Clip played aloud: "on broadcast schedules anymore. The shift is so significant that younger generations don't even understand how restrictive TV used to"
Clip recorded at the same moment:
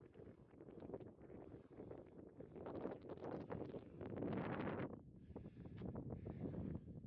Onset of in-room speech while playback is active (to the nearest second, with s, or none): none